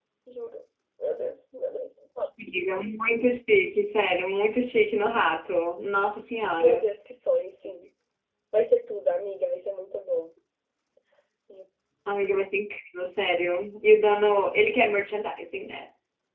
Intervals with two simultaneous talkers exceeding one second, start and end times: none

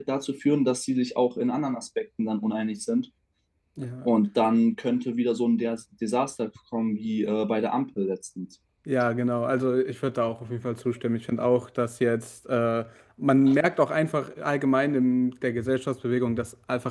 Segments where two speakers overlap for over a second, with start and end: none

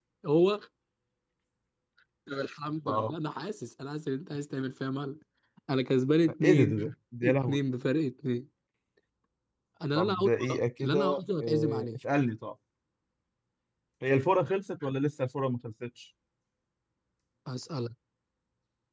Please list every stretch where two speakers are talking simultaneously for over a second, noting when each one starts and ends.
10.0-11.9

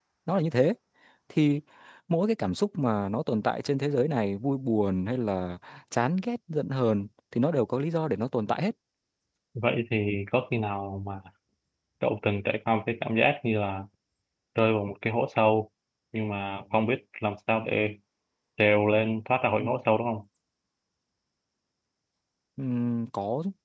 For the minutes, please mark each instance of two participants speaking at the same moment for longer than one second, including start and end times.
none

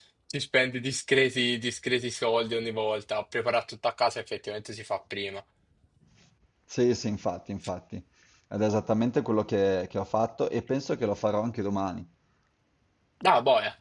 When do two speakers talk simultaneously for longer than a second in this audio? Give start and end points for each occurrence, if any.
none

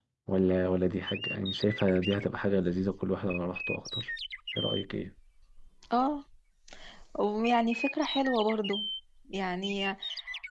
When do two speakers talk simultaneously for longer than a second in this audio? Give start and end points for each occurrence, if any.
none

